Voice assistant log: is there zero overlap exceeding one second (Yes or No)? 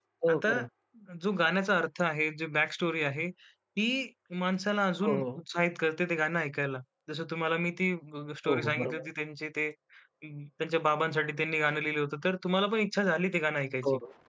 Yes